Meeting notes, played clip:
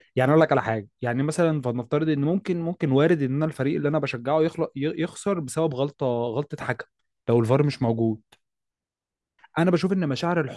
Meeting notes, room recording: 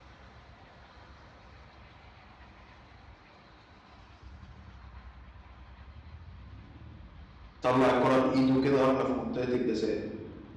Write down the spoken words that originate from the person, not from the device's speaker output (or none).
طلع الكرة بإيده كده وإحنا في منطقة الجزاء